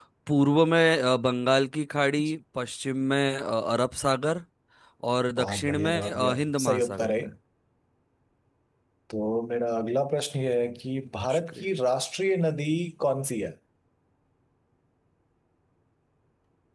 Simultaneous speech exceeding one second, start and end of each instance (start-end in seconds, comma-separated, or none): 5.4-7.1